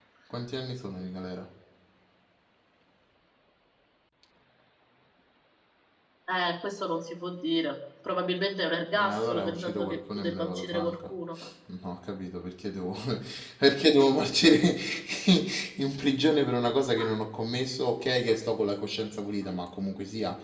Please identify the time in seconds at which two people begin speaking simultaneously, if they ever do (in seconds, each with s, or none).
8.9 s